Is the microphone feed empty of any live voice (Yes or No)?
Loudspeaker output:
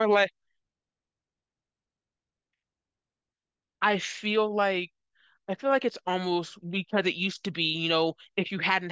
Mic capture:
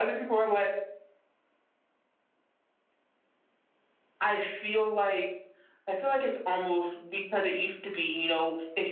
Yes